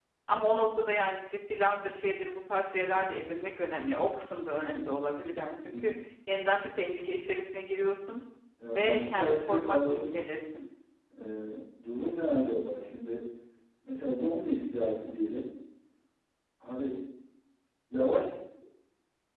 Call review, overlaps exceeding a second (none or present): present